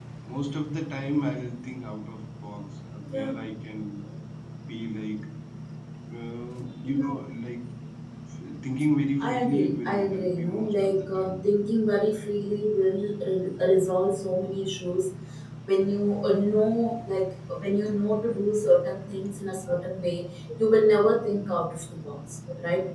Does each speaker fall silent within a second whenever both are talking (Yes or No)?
No